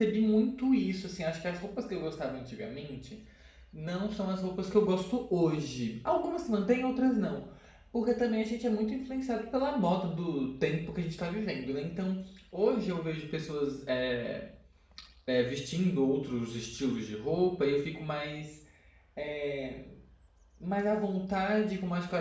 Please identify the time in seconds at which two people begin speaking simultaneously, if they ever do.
none

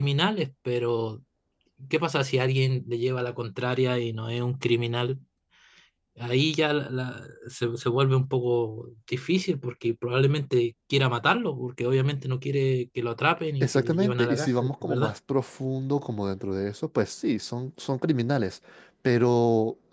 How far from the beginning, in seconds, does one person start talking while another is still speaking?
13.6 s

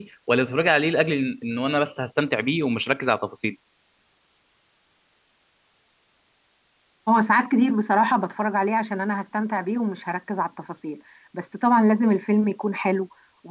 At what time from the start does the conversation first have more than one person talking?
none

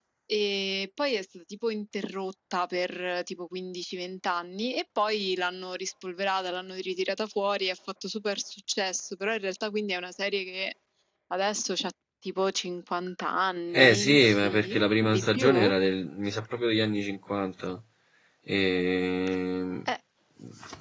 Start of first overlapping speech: 13.8 s

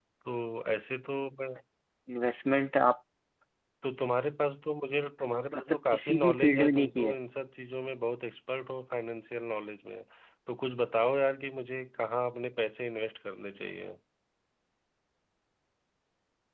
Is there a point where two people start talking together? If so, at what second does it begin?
5.7 s

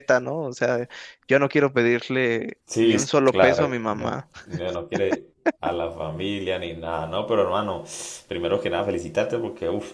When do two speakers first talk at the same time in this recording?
2.7 s

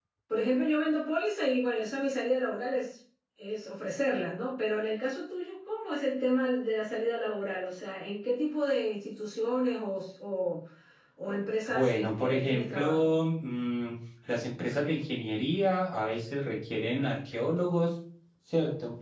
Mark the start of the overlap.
11.7 s

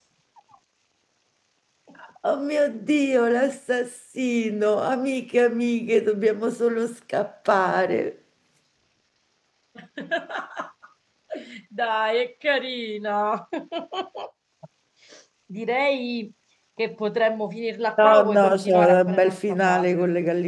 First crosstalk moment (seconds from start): 18.0 s

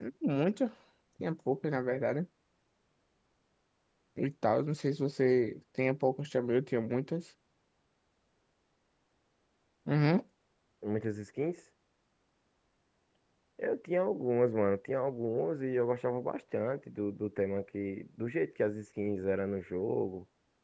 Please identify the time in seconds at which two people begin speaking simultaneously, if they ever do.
none

